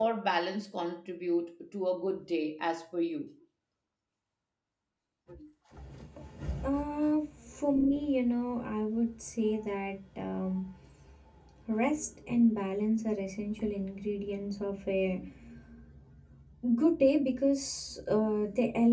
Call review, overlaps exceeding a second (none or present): none